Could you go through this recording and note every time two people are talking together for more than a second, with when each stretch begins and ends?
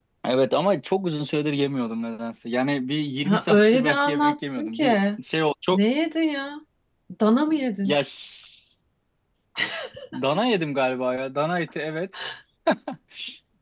3.2-5.0

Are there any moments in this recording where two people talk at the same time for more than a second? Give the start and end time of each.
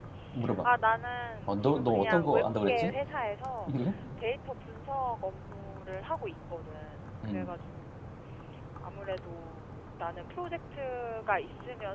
1.5-2.9

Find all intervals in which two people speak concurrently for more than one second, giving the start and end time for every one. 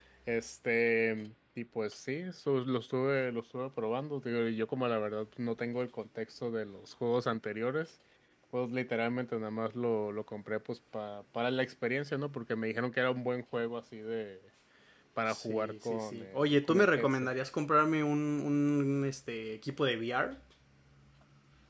15.3-17.3

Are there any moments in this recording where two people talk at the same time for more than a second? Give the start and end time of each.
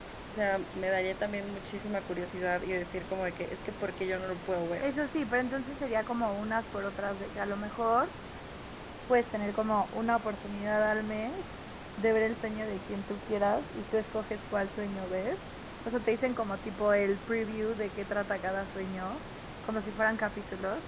none

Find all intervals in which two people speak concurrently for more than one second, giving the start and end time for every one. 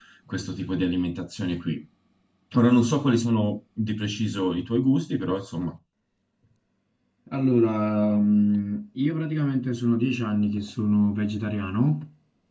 none

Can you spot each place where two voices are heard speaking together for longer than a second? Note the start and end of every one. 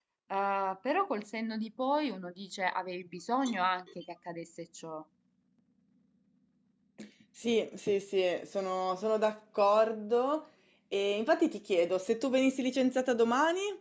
none

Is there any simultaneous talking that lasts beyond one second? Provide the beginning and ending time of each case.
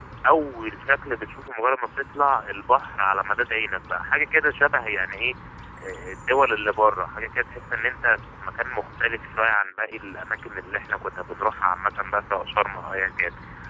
none

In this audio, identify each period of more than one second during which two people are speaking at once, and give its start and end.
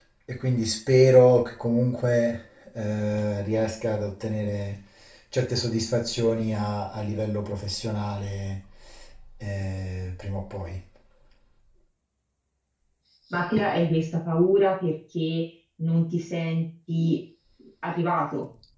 none

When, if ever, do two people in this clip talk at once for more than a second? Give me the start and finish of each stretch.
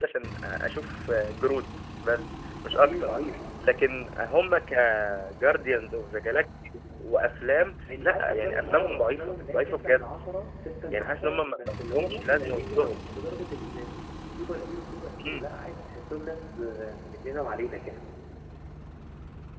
8.0-10.1, 10.9-12.9

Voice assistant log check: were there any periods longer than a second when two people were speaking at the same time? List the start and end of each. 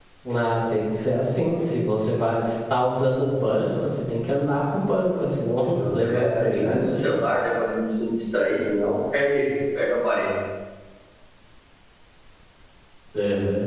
5.6-7.1

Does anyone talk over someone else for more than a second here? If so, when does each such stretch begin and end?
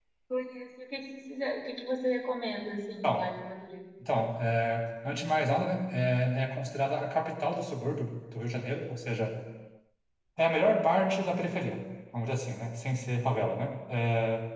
none

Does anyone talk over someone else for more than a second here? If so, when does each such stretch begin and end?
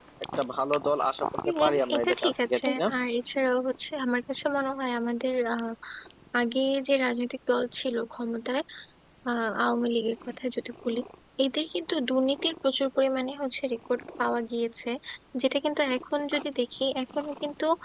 1.6-2.9

